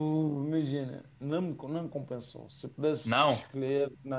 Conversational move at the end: listening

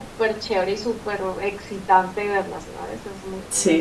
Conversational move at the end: taking over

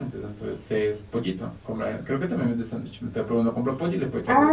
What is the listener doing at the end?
taking over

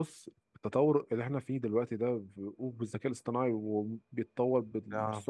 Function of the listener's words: listening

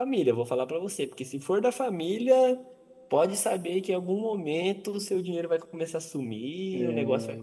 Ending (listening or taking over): listening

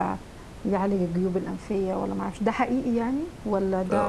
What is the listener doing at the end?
taking over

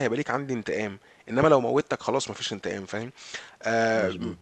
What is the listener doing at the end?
listening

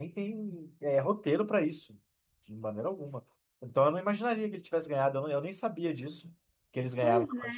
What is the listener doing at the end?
taking over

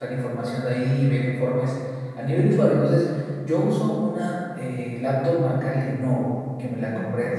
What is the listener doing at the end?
listening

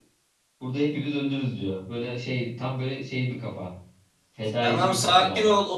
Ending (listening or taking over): taking over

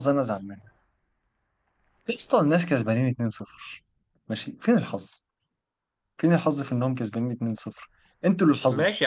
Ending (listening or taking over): taking over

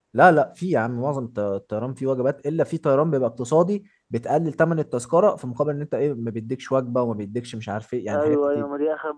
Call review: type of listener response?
taking over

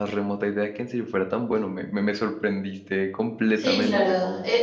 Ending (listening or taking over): taking over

